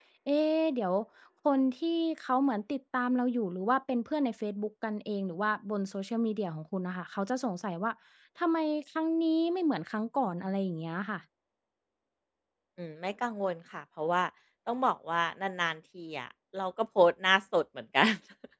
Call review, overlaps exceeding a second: none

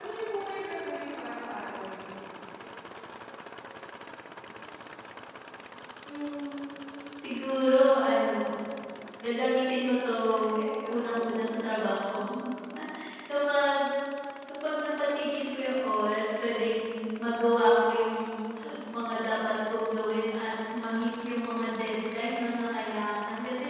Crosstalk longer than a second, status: none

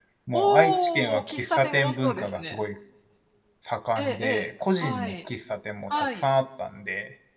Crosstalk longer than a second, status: present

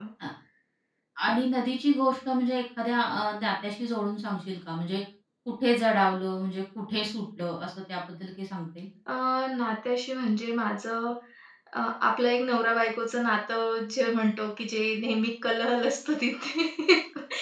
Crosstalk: none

